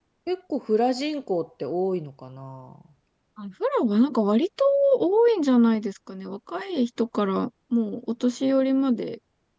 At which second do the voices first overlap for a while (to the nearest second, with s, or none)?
none